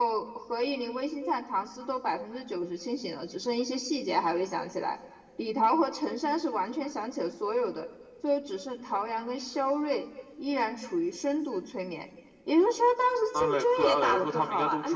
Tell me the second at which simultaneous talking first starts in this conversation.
13 s

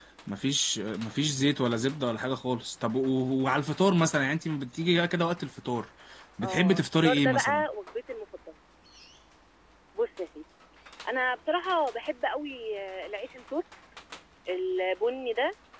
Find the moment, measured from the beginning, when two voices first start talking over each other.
6 s

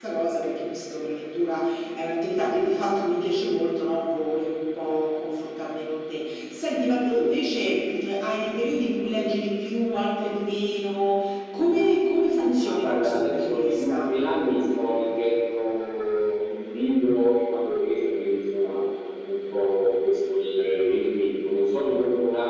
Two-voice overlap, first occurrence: 13 s

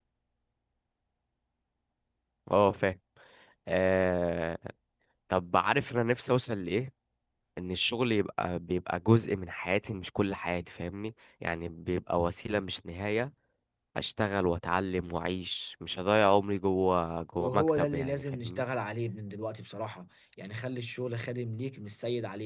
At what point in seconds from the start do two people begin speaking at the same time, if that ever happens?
17 s

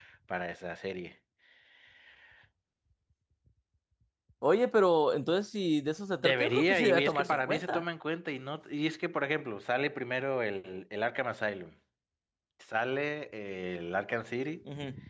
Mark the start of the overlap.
6 s

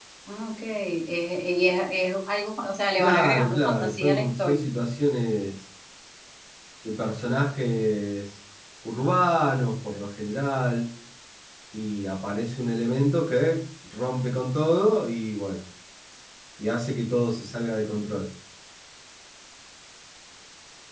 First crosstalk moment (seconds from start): 3 s

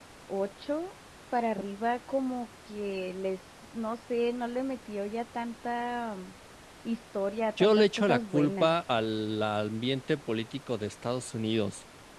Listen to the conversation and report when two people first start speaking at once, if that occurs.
8 s

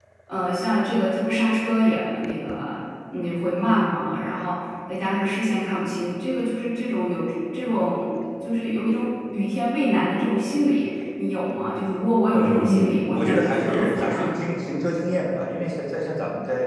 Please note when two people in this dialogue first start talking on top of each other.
12 s

